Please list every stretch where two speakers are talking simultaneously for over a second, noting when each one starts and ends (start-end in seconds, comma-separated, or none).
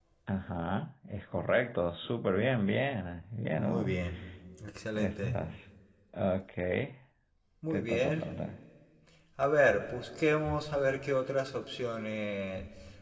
none